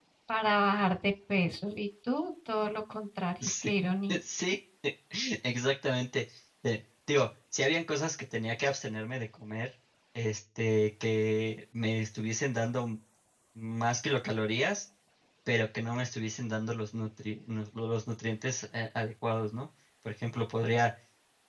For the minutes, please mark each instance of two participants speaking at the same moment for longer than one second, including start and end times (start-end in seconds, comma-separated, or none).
none